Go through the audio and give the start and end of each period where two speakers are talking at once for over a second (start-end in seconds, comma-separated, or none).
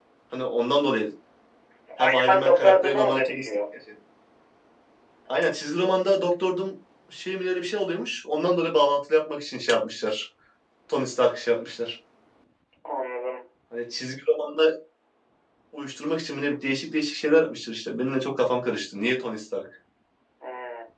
2.0-3.5